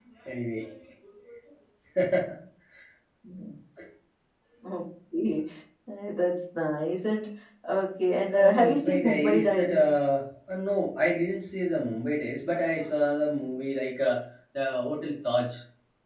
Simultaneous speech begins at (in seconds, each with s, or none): 8.3 s